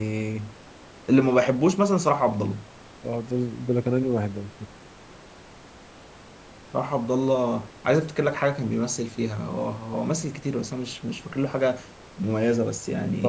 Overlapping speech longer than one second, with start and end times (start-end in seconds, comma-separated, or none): none